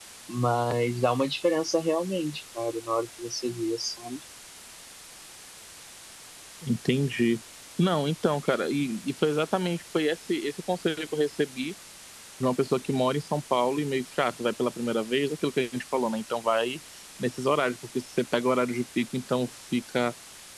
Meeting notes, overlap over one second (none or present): none